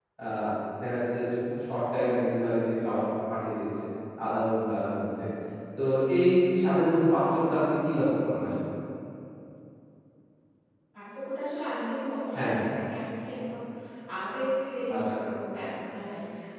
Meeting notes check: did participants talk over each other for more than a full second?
No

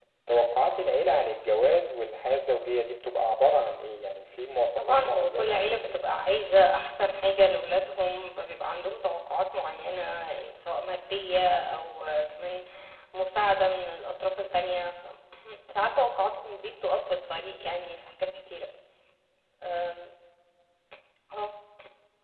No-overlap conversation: No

